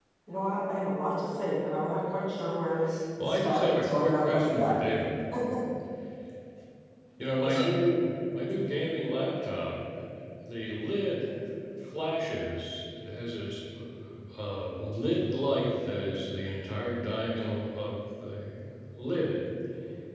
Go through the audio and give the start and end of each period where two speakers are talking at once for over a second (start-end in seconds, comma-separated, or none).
3.3-4.8